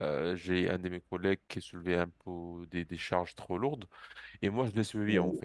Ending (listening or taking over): listening